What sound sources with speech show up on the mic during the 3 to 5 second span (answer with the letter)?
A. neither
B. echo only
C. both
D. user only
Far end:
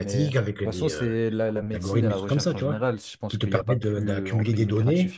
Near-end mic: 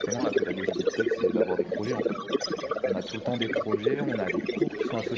C